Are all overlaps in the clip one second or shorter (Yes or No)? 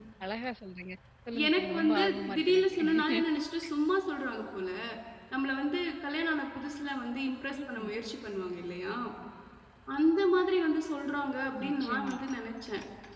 No